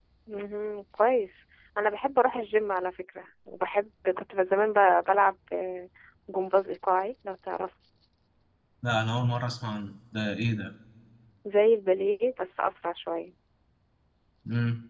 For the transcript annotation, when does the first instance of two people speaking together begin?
none

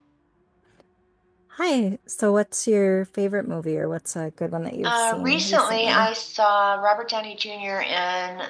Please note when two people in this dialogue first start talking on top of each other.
4.8 s

